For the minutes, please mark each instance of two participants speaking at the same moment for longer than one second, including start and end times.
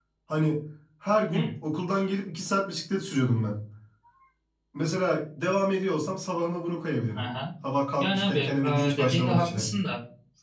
8.0-9.6

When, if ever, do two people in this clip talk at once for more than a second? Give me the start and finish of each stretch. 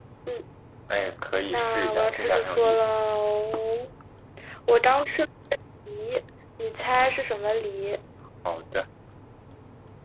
1.5-2.8

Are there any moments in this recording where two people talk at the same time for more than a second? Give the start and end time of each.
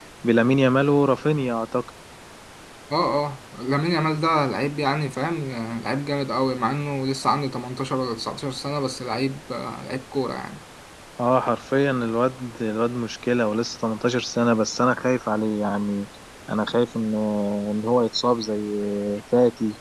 none

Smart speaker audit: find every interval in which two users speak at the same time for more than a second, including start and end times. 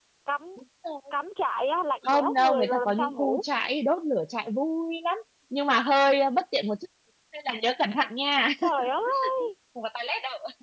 2.0-3.4

